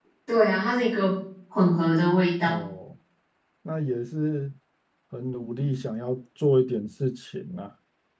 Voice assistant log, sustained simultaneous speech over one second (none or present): none